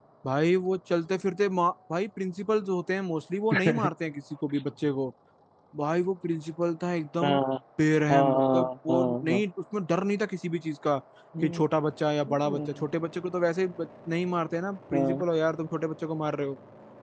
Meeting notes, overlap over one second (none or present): present